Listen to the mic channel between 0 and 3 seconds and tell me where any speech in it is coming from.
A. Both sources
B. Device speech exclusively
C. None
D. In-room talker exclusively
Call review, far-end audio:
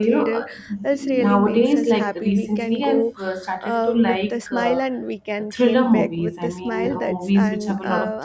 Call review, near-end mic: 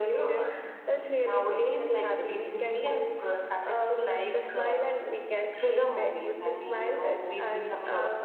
B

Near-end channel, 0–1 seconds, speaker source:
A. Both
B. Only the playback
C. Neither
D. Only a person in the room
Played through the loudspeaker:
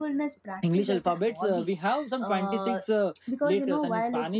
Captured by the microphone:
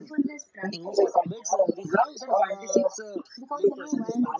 B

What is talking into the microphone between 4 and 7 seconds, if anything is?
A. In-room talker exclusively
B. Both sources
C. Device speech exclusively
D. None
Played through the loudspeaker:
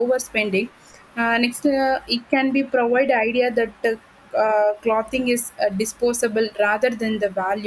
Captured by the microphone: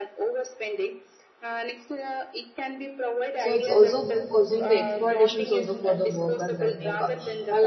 B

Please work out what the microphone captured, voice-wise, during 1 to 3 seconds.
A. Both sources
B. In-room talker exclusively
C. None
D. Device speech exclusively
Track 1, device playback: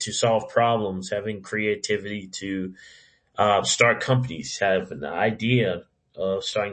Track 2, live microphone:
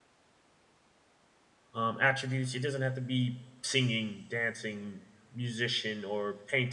B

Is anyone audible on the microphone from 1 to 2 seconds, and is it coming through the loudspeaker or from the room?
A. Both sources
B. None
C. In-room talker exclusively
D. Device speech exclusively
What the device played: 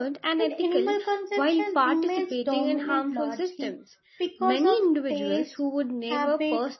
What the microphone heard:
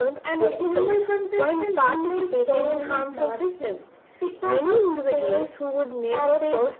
D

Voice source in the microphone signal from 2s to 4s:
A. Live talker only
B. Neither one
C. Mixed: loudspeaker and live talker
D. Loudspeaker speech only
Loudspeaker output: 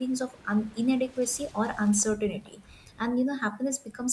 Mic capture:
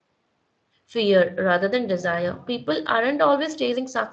A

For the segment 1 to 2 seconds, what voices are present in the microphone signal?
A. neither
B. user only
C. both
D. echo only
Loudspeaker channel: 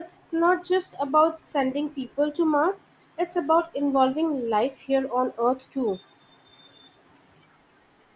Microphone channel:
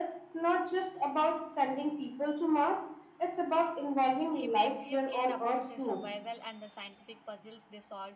D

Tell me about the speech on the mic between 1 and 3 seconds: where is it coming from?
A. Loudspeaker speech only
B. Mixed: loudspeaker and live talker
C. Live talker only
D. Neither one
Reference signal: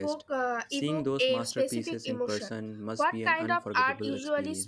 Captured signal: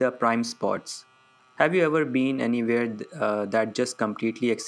C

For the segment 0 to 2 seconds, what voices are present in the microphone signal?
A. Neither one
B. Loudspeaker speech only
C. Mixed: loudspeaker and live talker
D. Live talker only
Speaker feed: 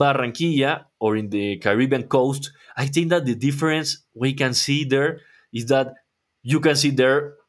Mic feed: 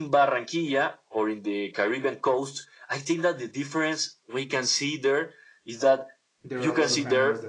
B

